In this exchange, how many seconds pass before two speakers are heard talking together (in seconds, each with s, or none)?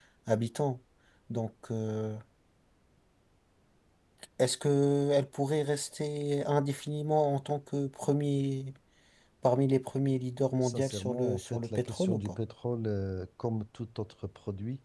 10.6 s